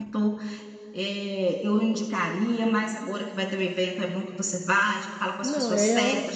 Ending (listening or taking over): listening